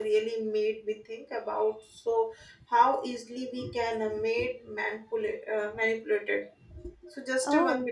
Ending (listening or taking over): listening